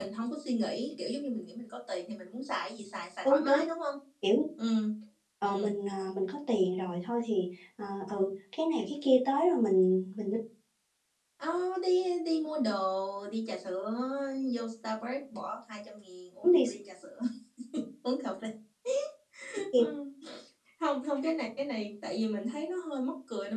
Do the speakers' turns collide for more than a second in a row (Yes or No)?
No